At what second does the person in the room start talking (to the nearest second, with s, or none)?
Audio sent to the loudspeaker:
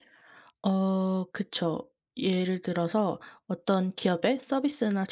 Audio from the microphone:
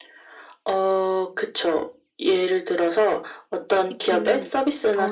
4 s